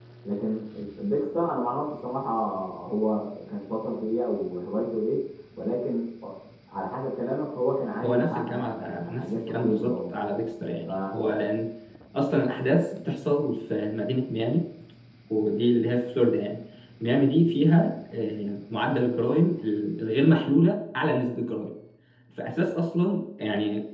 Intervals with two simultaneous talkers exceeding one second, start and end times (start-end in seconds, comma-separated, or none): 8.0-10.2